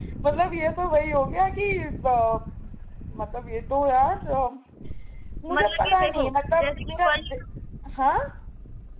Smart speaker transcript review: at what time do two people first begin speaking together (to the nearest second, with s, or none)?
5 s